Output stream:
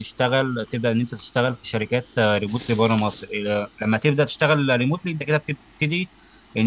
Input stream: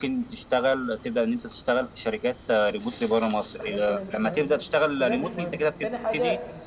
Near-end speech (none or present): present